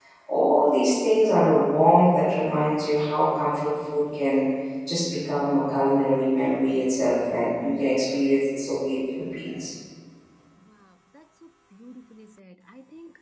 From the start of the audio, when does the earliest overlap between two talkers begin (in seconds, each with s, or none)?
none